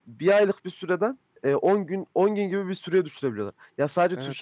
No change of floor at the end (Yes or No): Yes